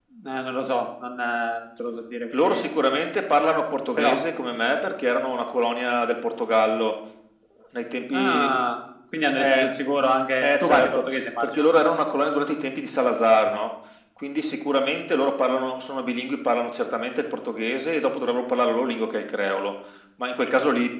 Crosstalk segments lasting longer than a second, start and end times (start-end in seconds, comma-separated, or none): 10.4-11.7